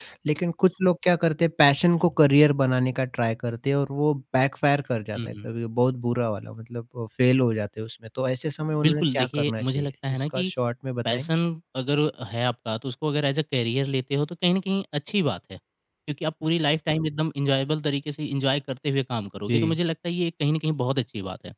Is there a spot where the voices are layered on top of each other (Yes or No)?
Yes